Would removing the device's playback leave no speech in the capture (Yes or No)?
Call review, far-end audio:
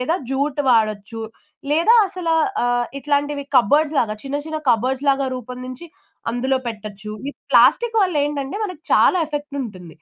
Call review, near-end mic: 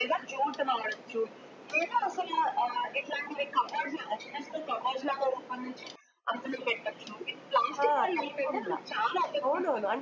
No